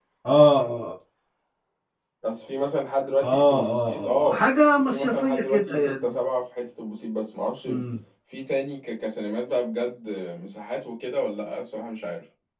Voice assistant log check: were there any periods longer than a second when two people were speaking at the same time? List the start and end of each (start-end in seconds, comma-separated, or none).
3.2-6.2